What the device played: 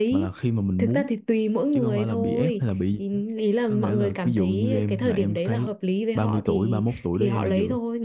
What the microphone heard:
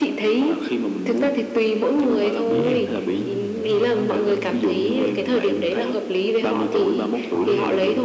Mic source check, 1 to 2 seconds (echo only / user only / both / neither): echo only